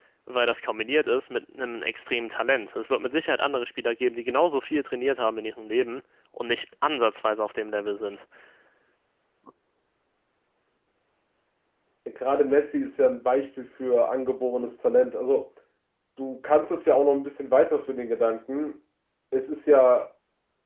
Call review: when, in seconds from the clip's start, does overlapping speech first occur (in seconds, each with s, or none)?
none